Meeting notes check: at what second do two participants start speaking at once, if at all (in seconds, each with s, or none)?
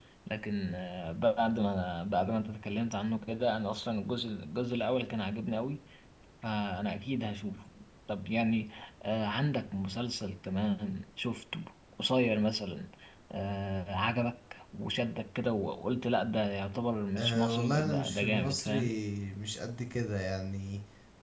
17.1 s